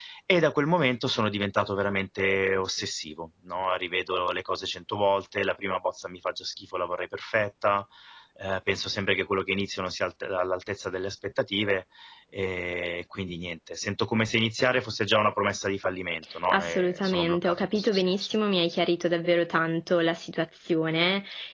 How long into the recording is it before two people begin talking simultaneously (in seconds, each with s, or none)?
16.5 s